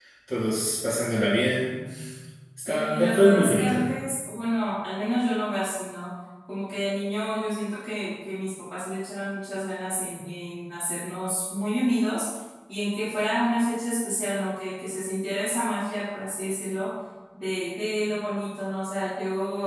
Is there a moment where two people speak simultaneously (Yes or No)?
Yes